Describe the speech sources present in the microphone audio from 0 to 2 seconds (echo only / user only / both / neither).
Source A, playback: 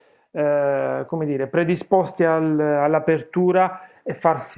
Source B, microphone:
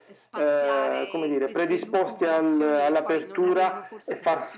both